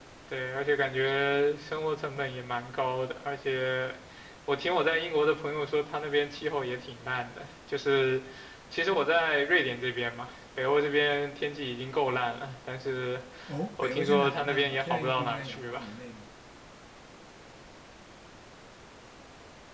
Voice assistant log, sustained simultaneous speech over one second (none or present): present